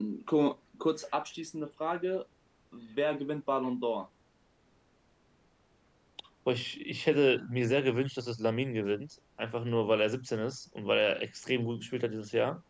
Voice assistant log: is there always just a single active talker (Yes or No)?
Yes